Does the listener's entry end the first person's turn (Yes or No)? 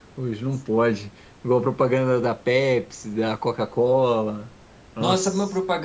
Yes